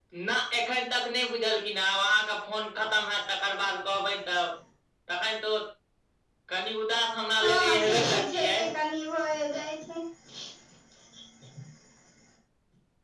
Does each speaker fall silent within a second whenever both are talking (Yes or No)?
No